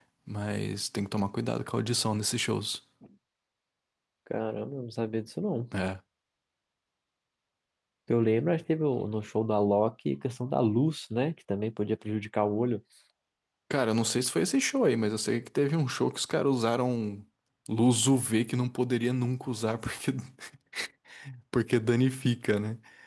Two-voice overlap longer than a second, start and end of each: none

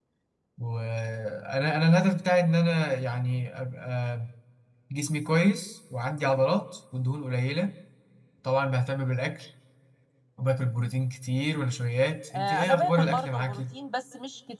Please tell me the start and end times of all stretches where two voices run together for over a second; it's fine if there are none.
12.3-13.6

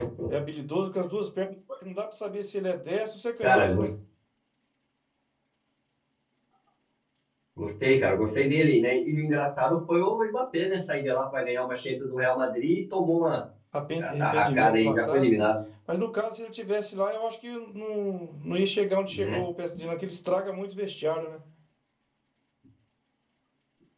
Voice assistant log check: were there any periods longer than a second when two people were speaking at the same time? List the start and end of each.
14.0-15.5

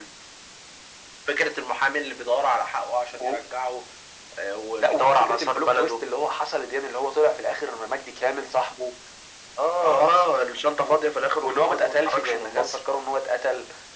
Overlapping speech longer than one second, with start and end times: 4.8-6.1, 11.4-12.8

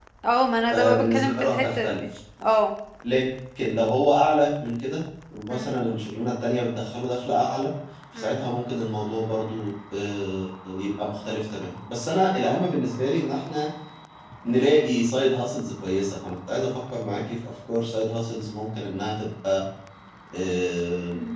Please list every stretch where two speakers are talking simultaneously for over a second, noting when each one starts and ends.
0.7-2.0

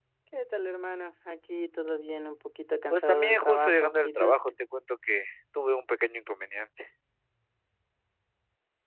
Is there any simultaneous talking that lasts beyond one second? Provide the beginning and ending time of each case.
2.9-4.4

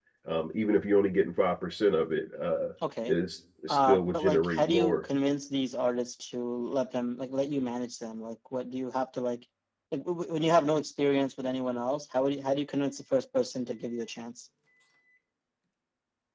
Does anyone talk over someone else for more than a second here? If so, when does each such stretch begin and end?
3.7-5.0

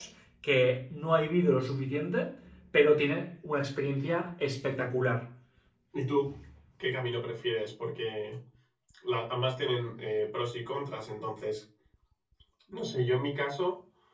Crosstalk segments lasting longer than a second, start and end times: none

